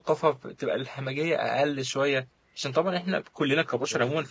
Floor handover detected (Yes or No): No